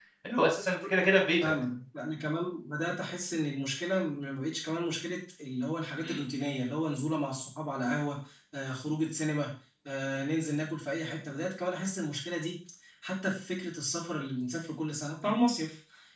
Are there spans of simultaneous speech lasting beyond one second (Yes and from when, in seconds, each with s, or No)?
No